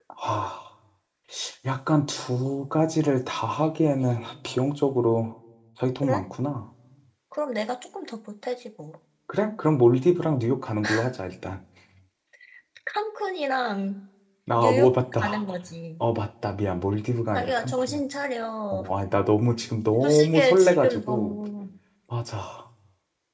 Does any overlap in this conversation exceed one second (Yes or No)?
Yes